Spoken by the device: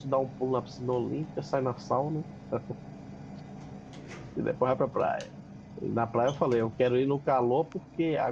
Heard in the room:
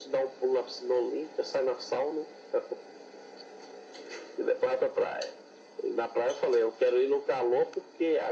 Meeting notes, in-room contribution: none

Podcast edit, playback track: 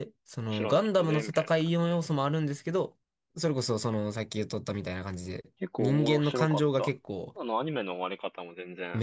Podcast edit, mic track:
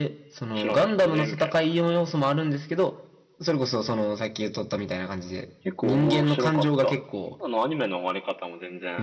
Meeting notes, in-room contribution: none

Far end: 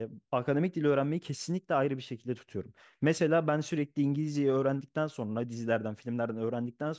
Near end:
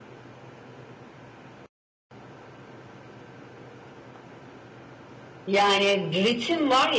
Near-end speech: present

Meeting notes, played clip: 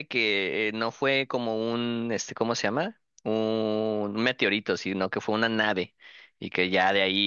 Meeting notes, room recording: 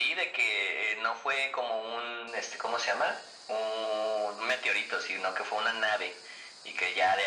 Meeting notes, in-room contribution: none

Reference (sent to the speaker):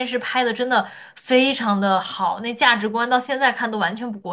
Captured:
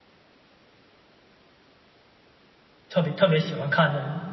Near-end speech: present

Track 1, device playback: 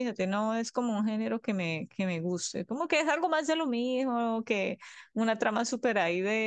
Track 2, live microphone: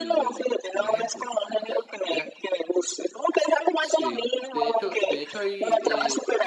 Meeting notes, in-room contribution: present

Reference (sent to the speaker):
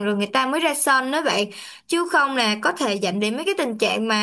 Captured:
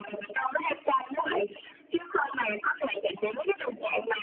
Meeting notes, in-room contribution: none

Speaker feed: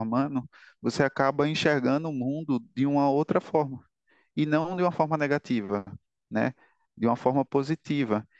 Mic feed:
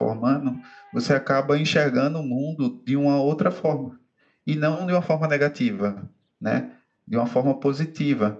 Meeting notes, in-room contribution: none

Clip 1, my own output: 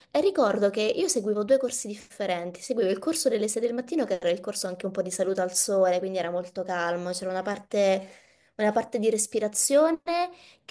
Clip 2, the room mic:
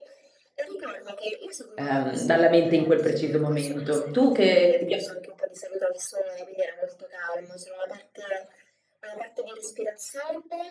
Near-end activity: present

